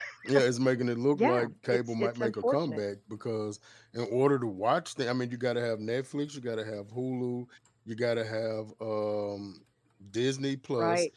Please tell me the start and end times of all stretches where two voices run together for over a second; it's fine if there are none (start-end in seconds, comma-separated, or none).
1.1-2.8